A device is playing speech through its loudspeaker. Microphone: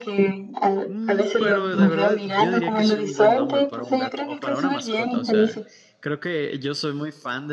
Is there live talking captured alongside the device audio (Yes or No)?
Yes